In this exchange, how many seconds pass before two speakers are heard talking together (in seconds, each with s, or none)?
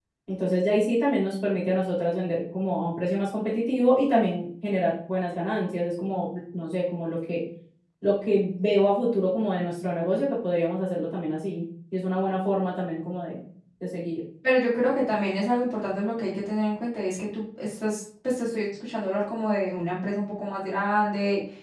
none